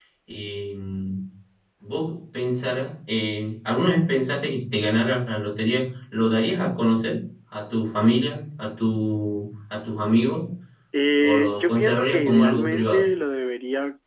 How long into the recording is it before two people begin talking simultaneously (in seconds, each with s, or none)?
11.2 s